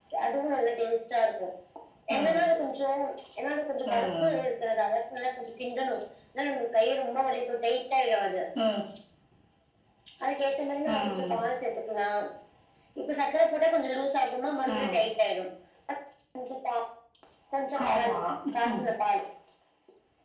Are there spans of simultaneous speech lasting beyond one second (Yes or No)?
No